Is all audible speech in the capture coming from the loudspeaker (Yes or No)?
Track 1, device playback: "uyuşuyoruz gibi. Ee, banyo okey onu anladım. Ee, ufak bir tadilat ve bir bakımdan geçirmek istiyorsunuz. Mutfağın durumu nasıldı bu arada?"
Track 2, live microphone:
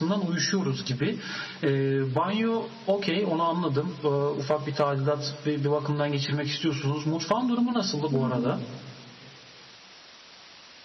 No